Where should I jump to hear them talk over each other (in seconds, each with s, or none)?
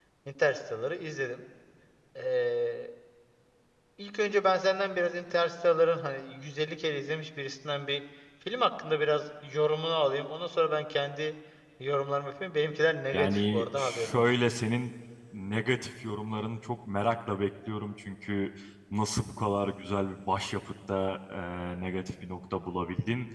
13.1 s